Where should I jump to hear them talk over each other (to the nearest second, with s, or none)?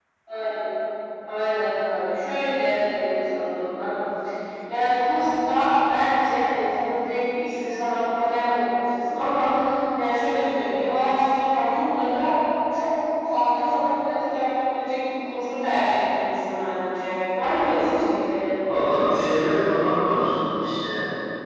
none